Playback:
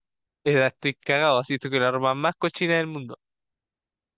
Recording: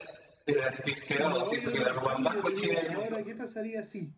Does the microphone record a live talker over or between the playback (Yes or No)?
Yes